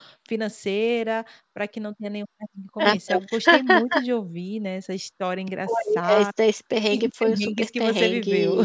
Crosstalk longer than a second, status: present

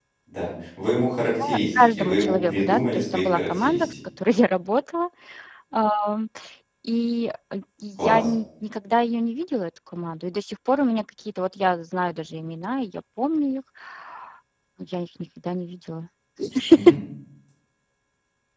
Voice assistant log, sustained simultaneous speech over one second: present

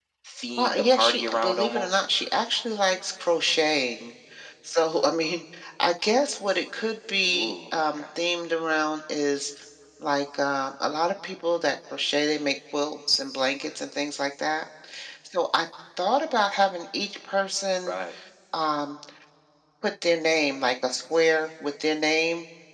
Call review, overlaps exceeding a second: present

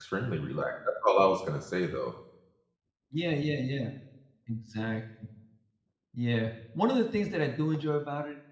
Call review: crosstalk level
none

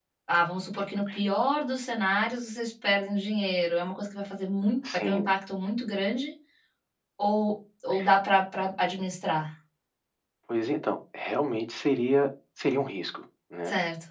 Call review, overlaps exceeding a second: none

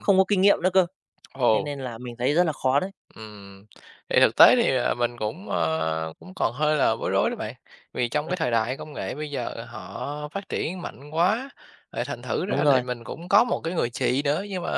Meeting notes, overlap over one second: none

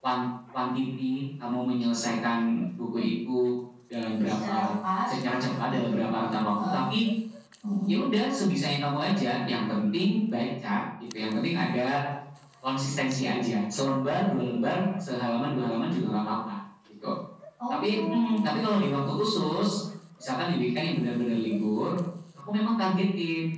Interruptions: present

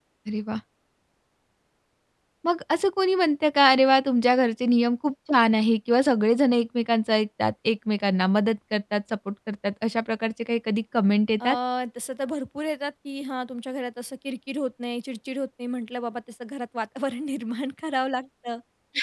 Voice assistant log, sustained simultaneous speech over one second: none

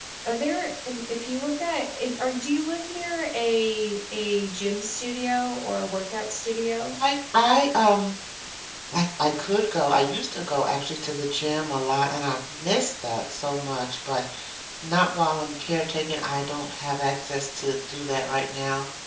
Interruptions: none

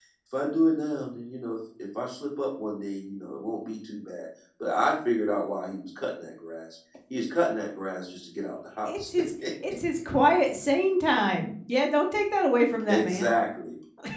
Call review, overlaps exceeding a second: none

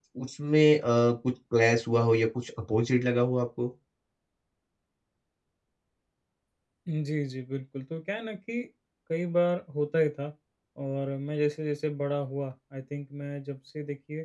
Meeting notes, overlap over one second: none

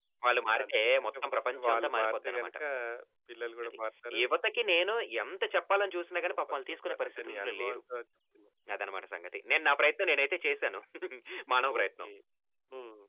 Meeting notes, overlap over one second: present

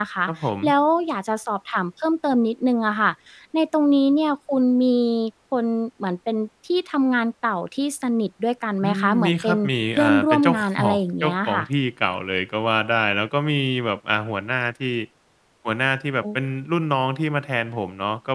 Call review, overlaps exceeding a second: present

